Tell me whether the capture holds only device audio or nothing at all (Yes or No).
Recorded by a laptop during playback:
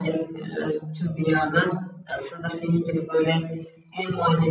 Yes